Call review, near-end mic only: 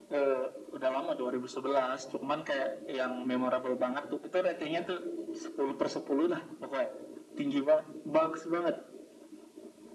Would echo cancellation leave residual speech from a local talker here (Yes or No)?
No